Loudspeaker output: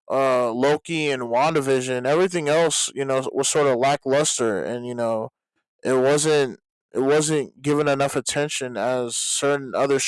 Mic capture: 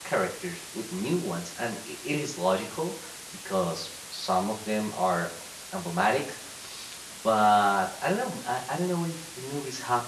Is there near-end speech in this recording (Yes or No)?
Yes